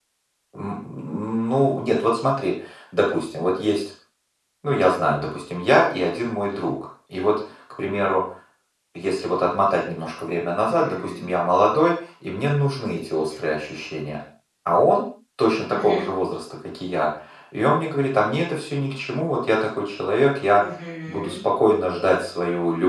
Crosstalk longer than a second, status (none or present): none